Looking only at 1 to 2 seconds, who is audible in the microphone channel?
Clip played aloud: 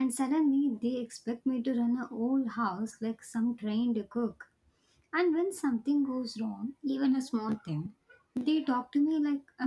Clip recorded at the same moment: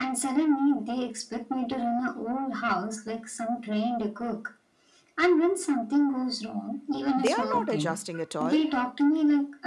echo only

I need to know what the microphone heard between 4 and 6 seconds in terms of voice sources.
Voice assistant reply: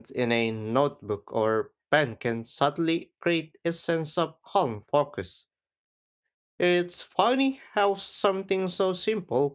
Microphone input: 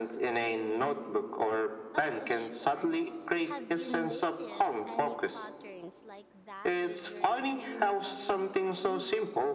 both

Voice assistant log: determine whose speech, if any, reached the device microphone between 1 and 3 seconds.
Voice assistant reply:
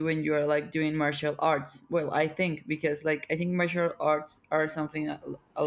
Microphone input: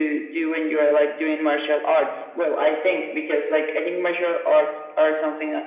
echo only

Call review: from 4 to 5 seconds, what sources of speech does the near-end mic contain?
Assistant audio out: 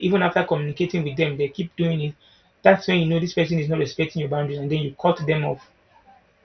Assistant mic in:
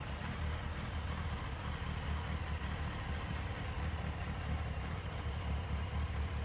neither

